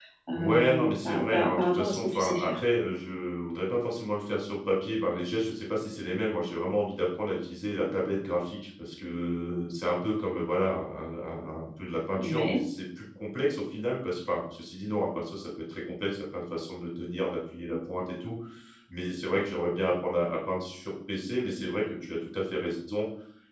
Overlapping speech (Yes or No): Yes